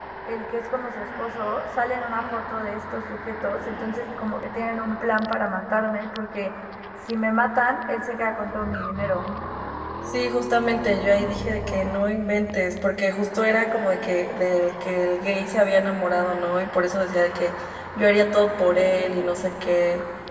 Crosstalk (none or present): none